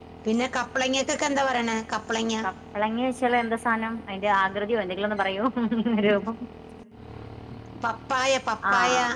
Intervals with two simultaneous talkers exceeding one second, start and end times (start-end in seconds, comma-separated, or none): none